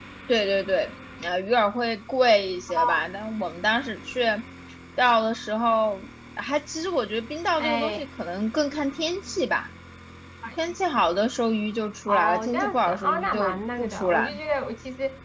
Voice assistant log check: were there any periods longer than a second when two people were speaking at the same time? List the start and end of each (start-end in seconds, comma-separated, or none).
12.1-14.4